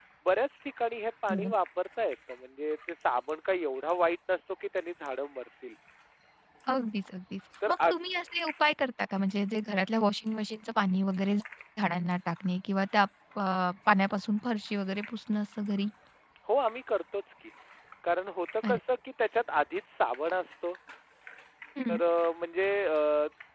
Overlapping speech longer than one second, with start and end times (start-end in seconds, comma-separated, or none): none